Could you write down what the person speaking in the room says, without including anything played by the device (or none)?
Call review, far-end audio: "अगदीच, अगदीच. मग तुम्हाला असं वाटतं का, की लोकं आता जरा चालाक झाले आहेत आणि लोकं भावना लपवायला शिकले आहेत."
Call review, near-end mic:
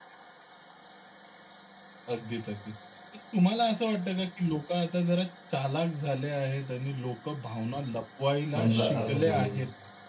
समजा असं बोलू.